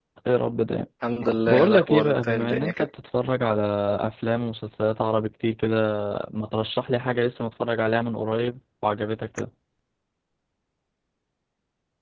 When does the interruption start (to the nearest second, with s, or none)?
1 s